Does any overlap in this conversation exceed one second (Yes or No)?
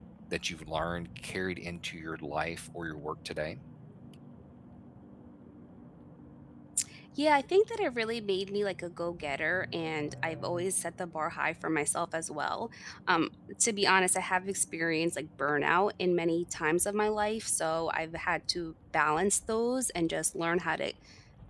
No